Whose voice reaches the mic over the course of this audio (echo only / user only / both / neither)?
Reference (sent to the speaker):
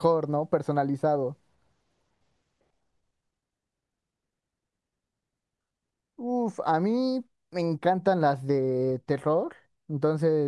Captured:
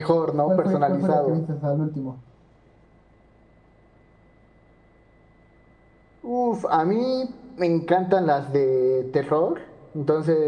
both